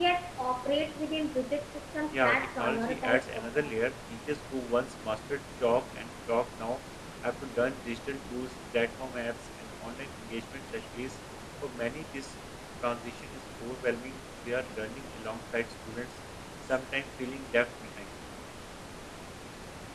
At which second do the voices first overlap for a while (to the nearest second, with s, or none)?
2 s